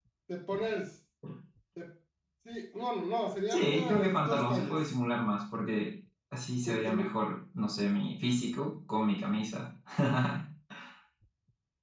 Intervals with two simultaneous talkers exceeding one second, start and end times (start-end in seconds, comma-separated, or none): 3.5-4.9